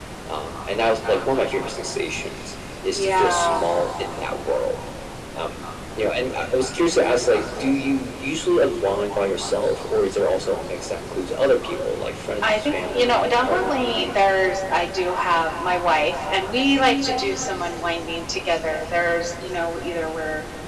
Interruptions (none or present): present